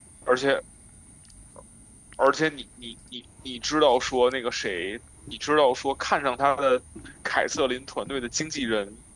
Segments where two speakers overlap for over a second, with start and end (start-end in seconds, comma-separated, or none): none